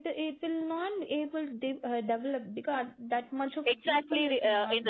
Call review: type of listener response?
taking over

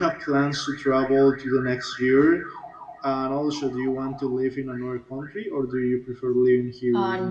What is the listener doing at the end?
taking over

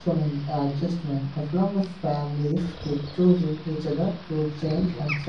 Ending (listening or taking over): listening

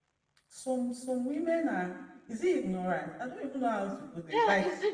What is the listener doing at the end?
taking over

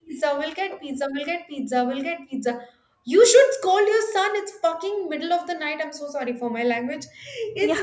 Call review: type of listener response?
listening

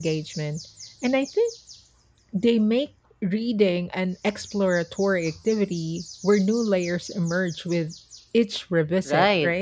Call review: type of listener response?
taking over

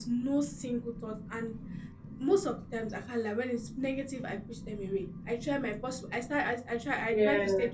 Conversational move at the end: listening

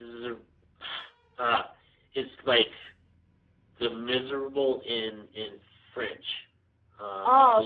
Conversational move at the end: taking over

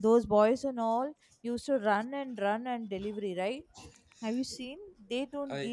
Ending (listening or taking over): listening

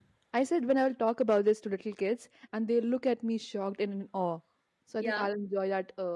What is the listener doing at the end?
listening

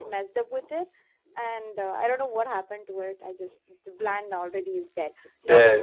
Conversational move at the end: listening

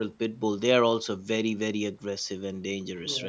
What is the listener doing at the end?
taking over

